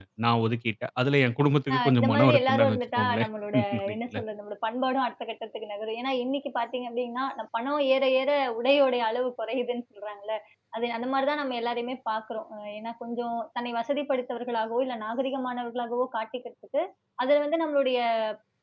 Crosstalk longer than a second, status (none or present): present